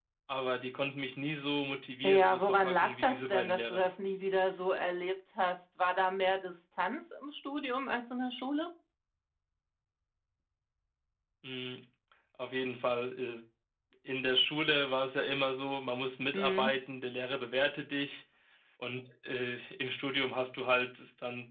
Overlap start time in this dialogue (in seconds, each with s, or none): 2.0 s